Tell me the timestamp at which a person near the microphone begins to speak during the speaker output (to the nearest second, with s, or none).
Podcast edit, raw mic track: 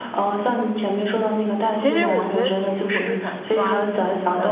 2 s